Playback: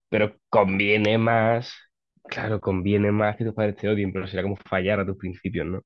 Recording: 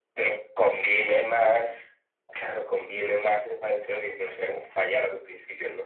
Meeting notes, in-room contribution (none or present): none